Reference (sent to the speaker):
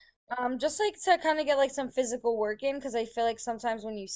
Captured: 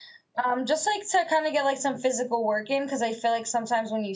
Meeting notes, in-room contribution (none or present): none